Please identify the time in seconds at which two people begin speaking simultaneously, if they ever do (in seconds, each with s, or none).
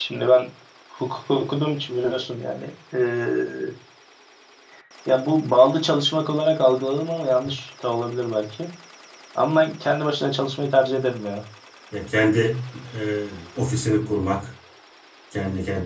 none